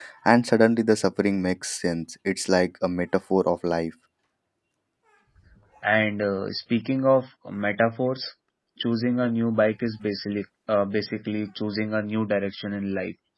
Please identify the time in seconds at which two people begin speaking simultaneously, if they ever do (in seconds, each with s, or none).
none